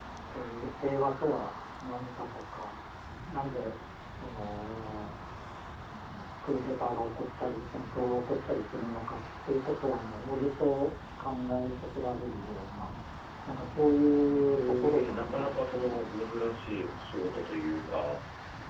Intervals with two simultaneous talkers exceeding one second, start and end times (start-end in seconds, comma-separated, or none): 14.6-16.1